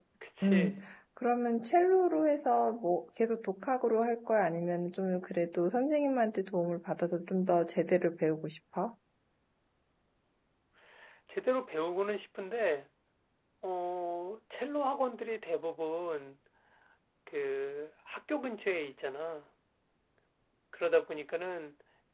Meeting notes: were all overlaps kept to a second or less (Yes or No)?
Yes